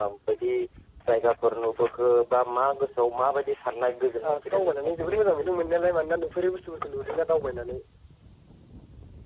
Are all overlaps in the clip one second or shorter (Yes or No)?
No